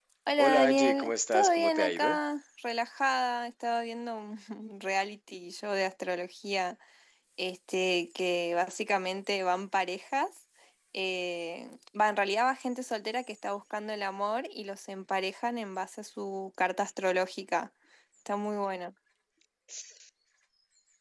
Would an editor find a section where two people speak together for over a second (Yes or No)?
Yes